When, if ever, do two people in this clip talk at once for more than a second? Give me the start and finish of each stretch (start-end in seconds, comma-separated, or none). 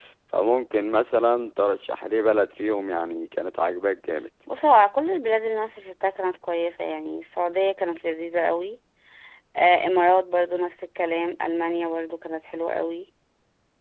none